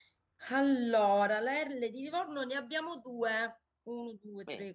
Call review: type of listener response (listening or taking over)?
listening